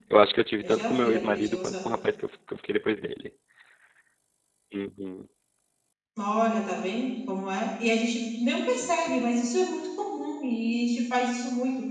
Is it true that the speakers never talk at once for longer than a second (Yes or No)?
No